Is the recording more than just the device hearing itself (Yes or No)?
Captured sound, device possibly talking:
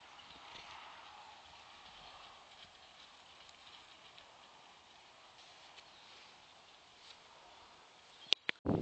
No